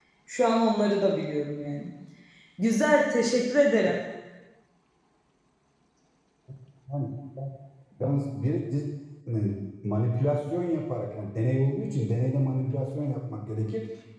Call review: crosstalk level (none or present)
none